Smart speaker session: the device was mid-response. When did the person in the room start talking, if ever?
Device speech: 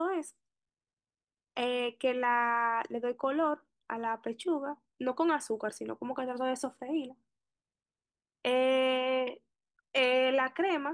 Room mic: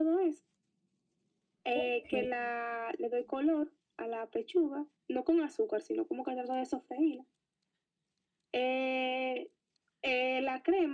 1.7 s

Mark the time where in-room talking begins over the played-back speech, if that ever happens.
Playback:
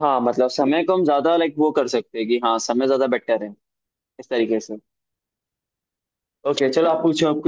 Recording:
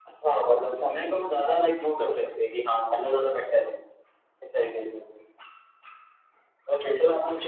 none

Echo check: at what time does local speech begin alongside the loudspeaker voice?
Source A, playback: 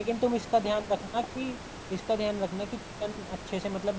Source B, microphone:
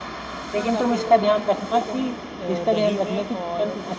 0.6 s

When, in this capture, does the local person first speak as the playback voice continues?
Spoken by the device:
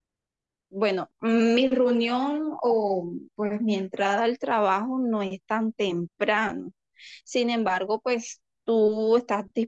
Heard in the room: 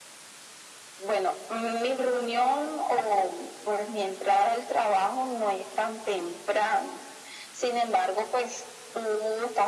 none

